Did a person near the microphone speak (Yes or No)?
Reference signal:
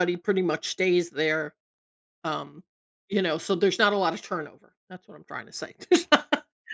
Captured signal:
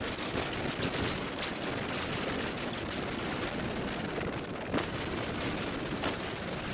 No